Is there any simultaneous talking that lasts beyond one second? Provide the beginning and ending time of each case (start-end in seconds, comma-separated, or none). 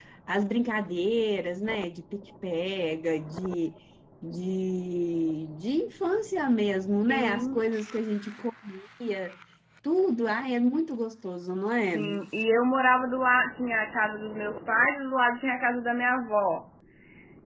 none